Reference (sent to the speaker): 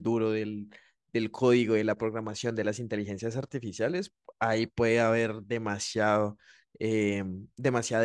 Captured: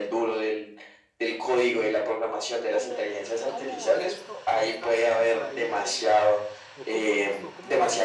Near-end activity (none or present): present